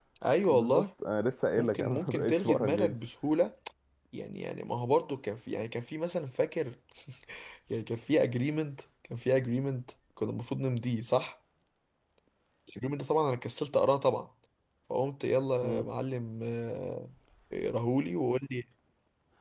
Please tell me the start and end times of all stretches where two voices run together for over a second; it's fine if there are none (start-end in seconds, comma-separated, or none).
1.6-3.0